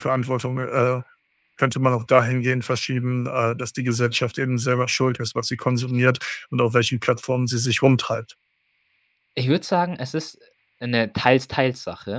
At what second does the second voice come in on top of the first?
none

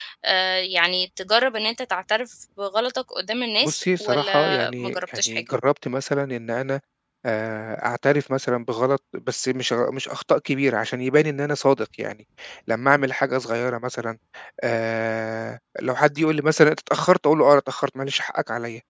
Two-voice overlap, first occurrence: 4 s

